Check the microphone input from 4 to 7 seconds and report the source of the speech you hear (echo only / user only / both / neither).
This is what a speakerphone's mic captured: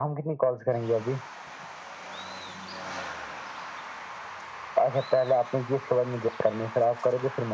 echo only